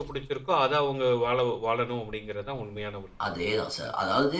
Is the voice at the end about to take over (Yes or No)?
Yes